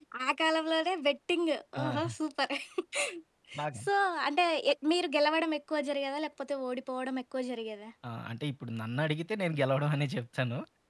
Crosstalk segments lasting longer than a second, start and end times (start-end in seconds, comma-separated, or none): none